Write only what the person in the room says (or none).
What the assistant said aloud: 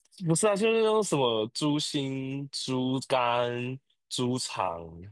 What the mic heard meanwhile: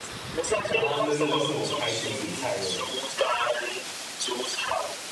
然后那那就是我开始煮菜的